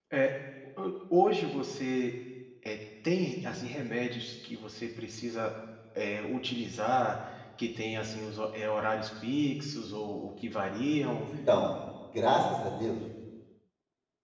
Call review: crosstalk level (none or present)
none